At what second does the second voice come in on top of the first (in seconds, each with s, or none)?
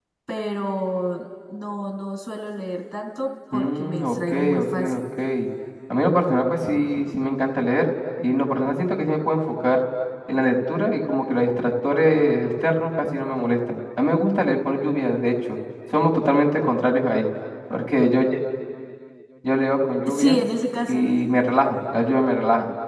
3.5 s